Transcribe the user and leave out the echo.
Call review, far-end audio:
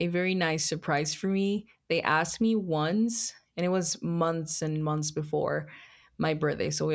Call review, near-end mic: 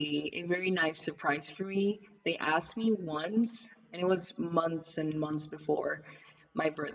none

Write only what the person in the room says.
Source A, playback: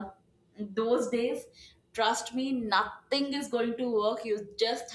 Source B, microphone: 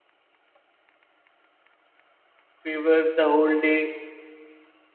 favor the whole day.

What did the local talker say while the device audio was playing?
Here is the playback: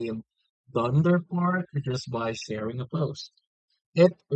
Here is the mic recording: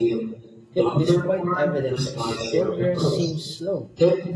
Yet despite evidences, progress seems slow.

